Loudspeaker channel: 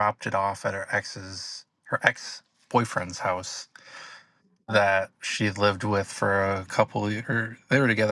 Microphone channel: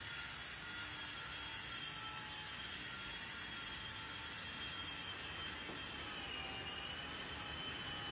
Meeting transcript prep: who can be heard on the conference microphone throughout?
neither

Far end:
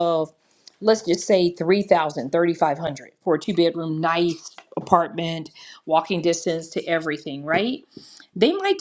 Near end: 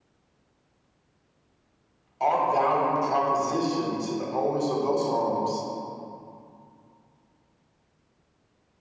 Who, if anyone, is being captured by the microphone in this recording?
user only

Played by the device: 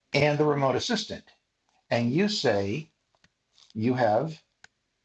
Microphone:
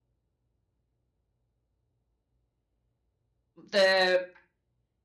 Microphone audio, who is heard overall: user only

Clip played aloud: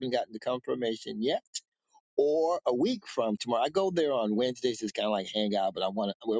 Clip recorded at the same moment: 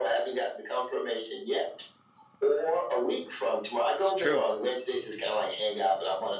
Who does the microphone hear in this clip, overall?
both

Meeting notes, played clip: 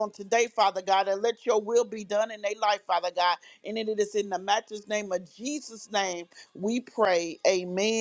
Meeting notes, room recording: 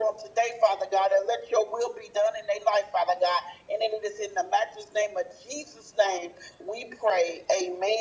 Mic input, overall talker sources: echo only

